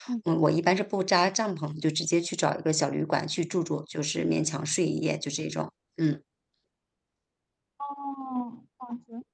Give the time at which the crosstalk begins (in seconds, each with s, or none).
none